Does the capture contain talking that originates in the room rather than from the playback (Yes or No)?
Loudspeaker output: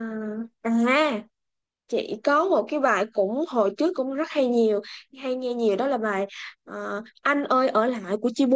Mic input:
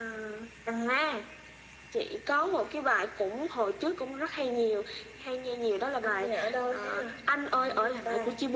Yes